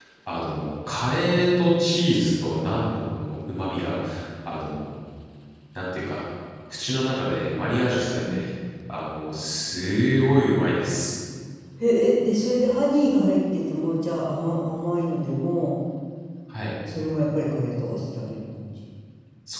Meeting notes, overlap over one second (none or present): none